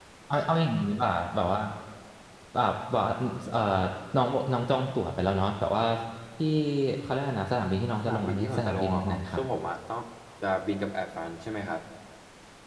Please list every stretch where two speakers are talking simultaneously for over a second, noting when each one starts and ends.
8.1-9.4

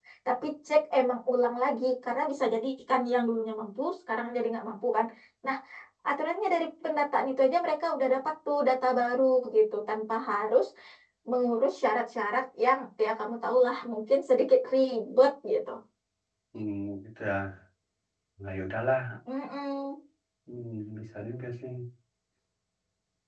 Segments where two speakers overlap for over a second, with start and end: none

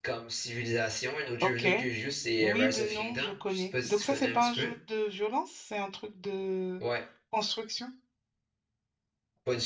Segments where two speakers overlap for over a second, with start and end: 2.4-4.7

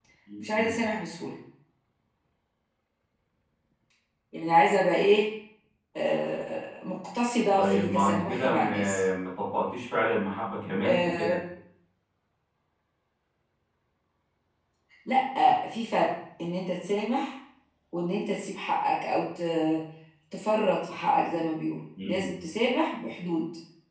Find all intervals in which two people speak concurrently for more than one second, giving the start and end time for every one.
7.6-9.0

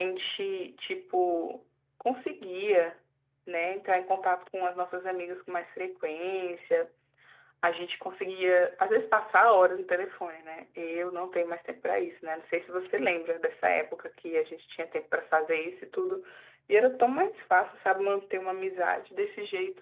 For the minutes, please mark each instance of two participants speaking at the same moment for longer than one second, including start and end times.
none

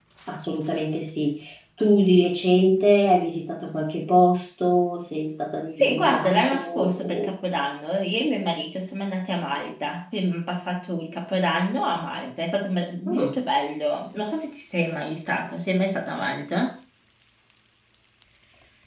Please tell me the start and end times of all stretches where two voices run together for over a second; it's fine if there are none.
5.8-7.3

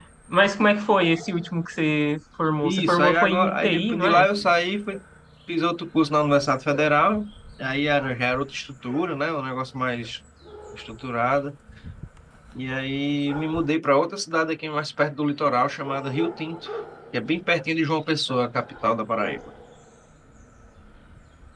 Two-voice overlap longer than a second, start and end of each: 2.6-4.2

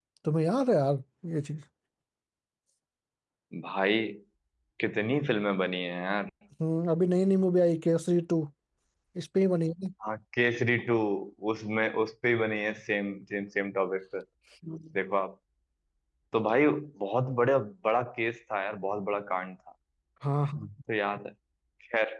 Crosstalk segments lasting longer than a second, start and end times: none

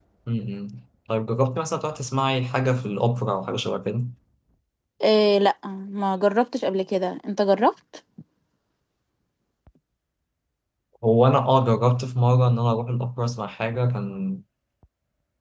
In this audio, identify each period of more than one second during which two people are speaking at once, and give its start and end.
none

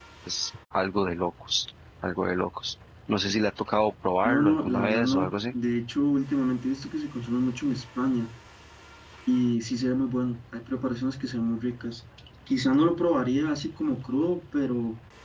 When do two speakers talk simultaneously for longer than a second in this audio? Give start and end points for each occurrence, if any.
4.2-5.5

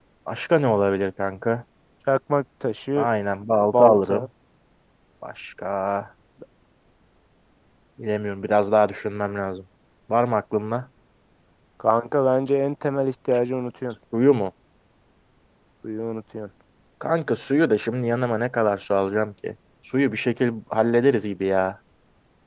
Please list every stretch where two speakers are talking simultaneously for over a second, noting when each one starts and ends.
none

